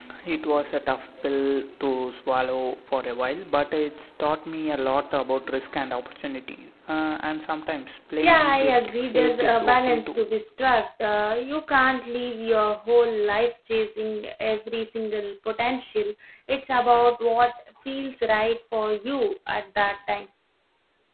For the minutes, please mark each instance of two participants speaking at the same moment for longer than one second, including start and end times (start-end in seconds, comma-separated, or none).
8.2-10.3